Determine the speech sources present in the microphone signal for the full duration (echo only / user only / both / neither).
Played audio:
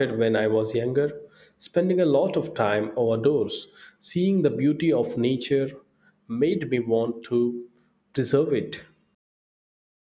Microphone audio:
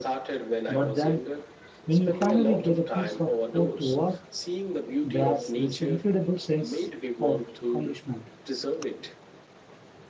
both